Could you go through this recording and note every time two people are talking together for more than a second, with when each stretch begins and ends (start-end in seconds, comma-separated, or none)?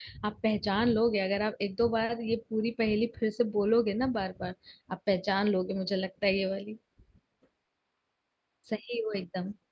none